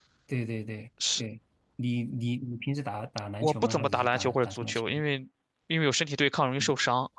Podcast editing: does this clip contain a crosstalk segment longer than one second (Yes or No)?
Yes